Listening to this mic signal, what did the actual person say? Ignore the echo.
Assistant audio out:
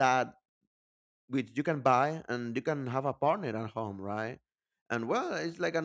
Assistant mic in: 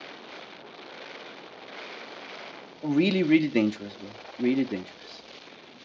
really, really dangerous, bro. Really dangerous.

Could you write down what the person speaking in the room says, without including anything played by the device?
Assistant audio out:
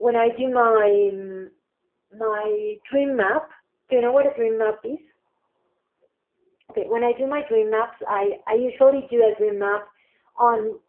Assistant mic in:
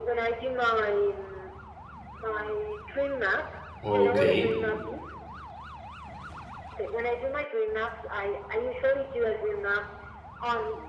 okay,

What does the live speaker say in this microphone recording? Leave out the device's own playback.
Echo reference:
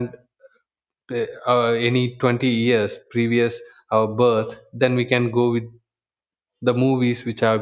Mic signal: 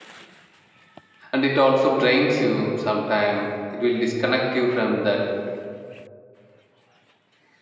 and it also drains you sometime it will disconnect you from that

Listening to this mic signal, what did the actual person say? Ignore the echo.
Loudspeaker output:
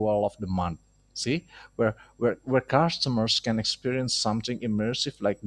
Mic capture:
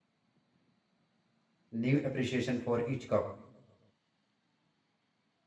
new appreciation for each cup,

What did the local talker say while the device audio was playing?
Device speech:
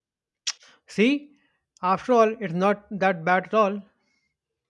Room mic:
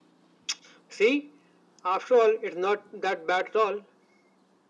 none

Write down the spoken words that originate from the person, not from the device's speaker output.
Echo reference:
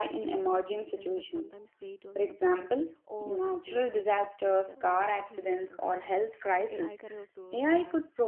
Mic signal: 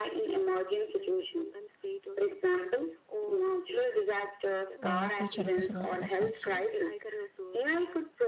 or future personal satisfaction.

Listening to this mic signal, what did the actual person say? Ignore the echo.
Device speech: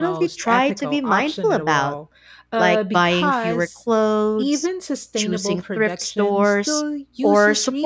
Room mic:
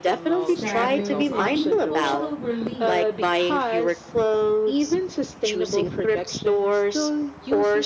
status, and even emotional relief.

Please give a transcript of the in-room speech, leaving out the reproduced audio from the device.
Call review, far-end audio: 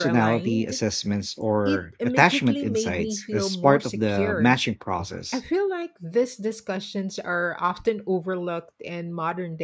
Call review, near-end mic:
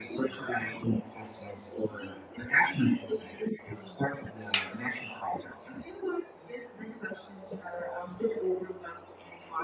none

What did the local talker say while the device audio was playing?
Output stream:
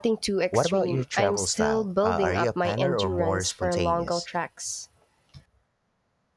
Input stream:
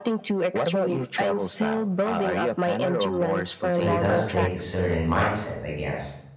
It does take a certain mindset, I guess,

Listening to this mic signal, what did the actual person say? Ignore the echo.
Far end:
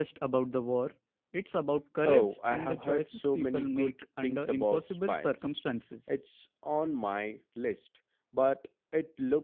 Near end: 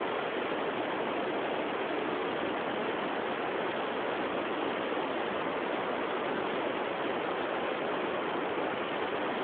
none

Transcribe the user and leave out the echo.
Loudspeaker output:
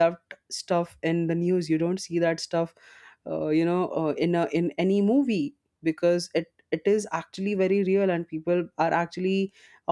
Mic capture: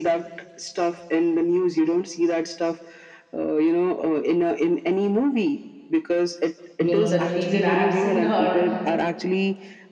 you know, that reason. I have seen her

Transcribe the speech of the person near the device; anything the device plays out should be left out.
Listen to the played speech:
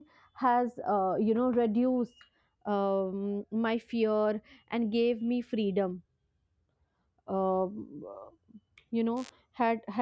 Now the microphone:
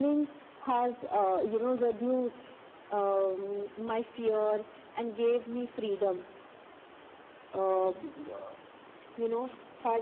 none

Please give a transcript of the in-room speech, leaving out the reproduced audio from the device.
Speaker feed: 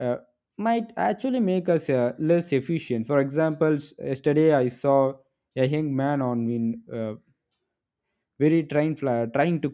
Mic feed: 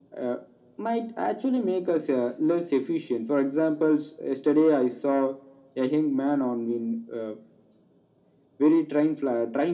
none

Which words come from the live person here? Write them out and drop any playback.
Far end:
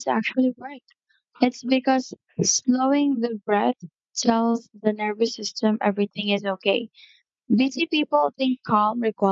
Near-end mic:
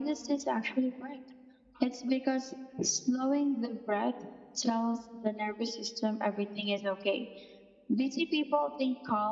none

